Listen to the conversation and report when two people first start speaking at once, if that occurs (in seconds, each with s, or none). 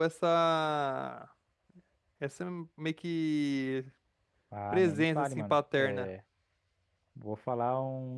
4.7 s